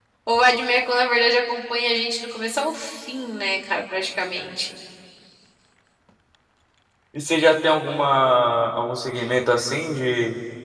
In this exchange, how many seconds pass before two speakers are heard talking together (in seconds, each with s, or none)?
none